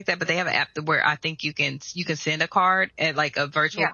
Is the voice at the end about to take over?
No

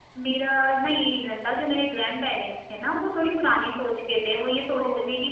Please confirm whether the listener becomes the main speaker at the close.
No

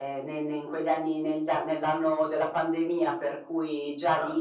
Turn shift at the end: No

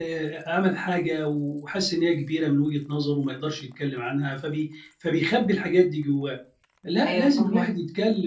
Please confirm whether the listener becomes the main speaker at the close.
No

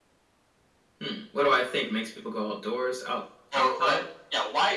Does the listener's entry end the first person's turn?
Yes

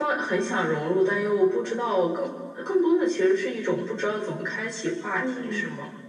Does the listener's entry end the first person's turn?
Yes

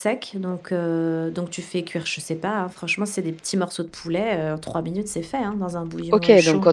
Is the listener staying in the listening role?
No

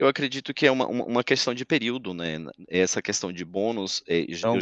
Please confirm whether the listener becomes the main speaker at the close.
Yes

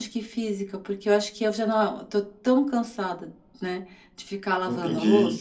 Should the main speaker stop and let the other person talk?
Yes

